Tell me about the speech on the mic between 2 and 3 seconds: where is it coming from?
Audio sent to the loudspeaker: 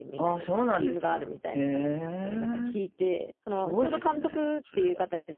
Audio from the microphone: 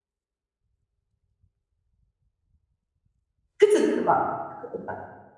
neither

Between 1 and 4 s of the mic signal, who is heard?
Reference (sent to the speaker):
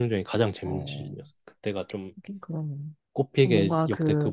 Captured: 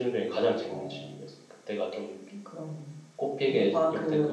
echo only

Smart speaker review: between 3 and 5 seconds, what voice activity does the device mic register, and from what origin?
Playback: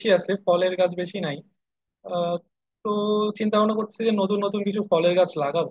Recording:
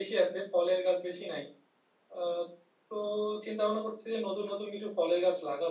echo only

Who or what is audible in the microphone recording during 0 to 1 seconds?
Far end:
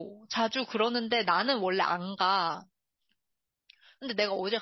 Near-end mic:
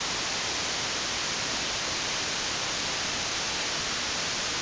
neither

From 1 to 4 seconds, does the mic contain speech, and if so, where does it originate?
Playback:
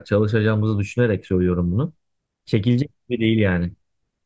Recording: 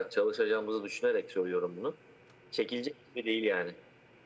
echo only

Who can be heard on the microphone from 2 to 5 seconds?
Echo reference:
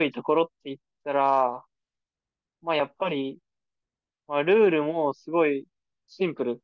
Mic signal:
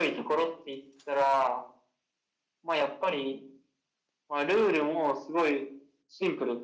echo only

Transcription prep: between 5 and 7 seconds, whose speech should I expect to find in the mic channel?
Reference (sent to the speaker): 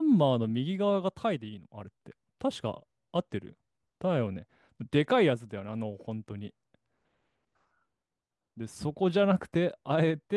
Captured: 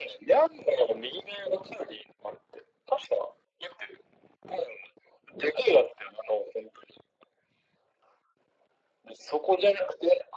echo only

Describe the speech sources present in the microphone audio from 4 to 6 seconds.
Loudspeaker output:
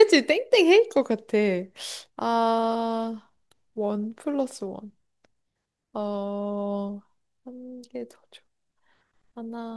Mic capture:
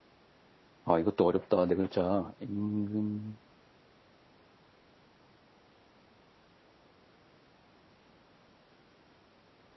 neither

